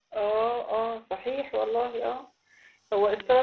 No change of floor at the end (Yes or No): Yes